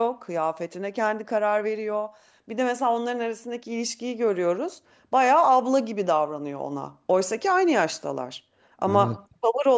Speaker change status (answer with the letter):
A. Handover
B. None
B